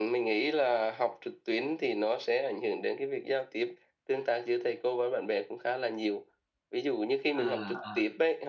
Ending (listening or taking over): listening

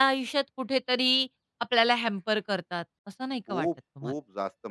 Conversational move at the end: taking over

